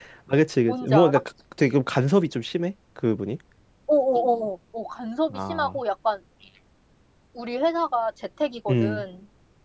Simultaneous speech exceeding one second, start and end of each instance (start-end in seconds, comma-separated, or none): none